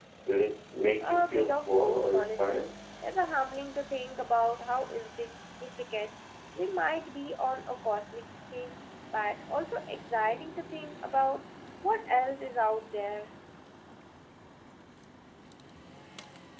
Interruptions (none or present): present